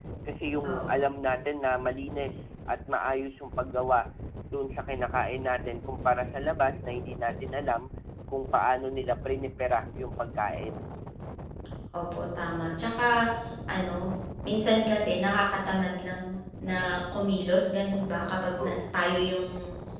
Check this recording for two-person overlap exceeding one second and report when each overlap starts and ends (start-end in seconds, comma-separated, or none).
none